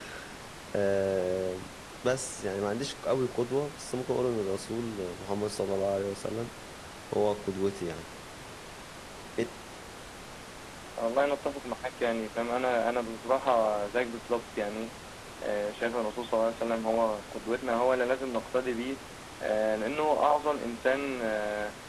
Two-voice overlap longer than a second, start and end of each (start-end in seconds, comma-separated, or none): none